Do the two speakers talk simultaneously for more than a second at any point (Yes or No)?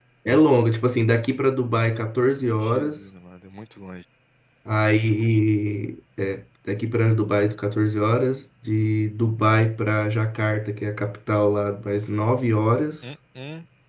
No